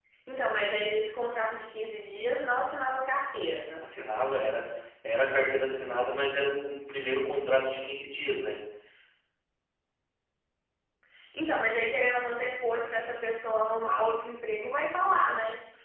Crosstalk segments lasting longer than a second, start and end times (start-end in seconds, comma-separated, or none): none